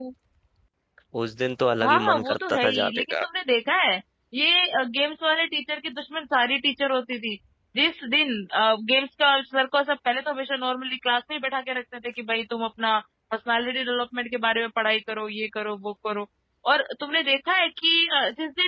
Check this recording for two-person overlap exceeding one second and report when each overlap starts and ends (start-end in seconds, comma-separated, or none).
1.8-3.2